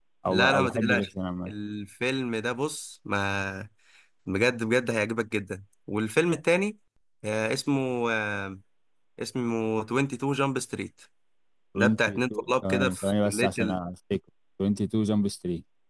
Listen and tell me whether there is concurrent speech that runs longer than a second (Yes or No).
Yes